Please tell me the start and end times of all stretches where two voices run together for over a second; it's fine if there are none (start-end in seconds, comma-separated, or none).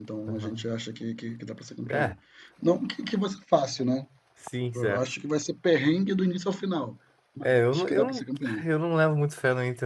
7.4-8.6